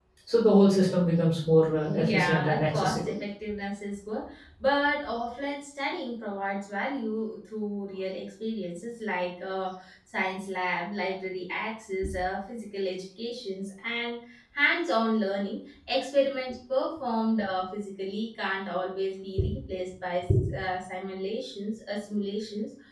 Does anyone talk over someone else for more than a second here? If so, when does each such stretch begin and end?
1.9-3.1

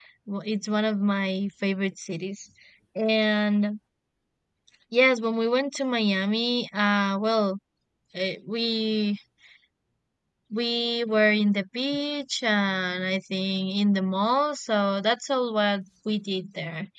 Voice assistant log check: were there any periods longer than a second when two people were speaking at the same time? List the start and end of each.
none

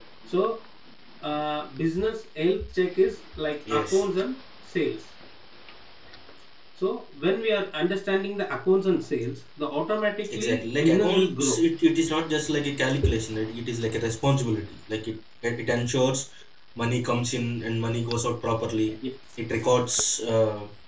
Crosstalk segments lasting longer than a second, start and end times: 10.3-11.6

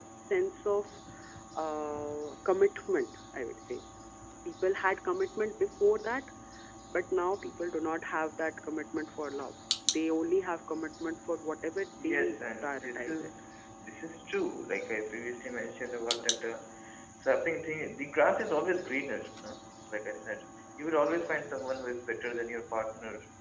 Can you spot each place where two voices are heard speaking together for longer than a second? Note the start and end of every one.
12.0-13.3

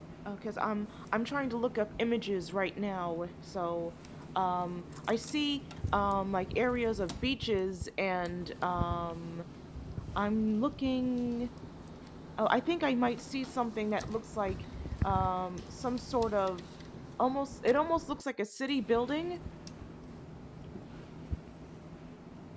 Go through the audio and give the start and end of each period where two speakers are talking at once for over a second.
none

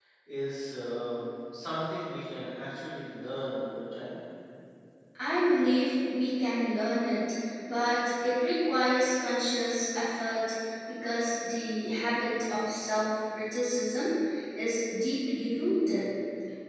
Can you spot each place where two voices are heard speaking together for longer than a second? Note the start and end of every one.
none

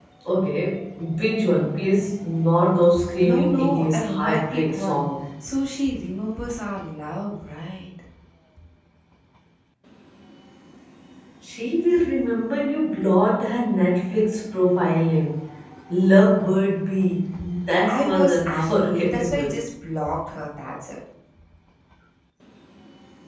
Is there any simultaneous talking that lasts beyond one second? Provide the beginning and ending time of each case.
3.2-5.1, 17.9-19.6

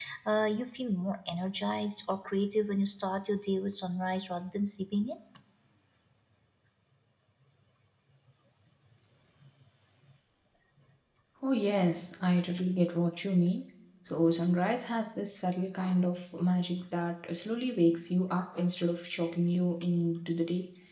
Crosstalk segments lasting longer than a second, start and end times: none

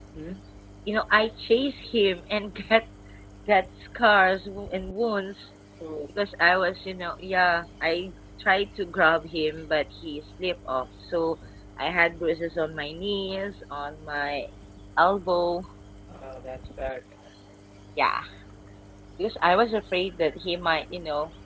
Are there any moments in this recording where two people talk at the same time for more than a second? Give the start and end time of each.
none

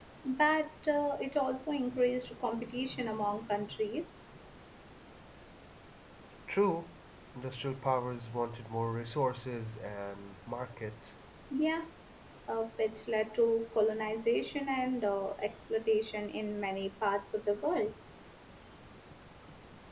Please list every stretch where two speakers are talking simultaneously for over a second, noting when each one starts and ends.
none

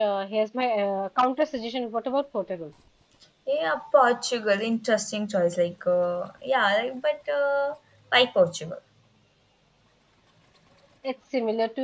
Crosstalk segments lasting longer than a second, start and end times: none

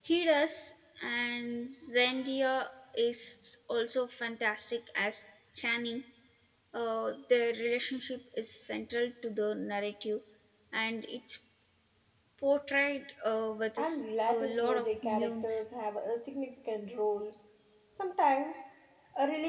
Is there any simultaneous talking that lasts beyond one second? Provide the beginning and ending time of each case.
13.8-15.6

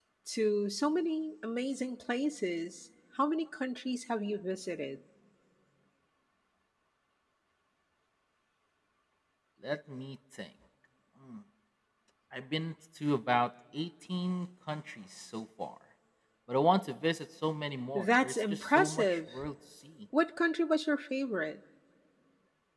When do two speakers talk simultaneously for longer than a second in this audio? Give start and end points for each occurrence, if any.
17.9-19.2

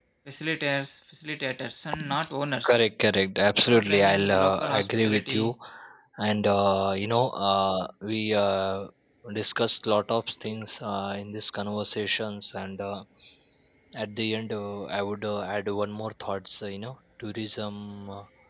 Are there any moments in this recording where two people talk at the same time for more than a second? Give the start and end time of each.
3.7-5.5

